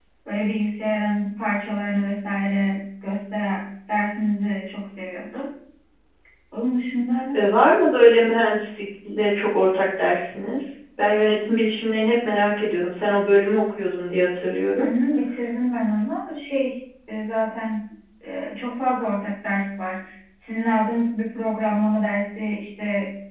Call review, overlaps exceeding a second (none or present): none